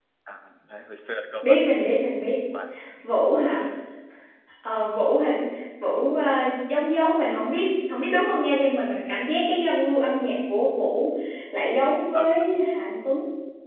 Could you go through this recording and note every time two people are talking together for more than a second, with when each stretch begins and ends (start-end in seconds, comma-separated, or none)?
none